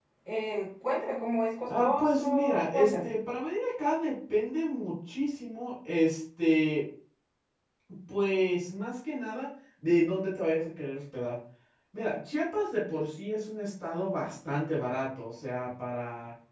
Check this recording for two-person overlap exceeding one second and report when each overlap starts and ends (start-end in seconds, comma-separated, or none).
1.7-3.1